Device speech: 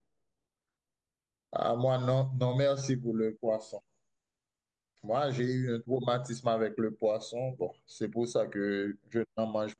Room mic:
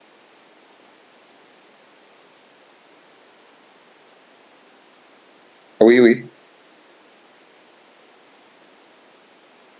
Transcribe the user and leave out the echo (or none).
Oui, oui.